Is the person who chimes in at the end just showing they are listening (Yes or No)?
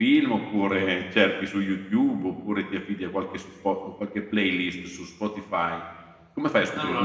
Yes